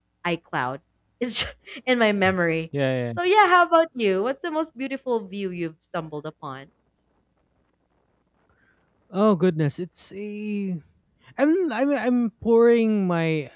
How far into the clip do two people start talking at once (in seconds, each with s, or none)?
none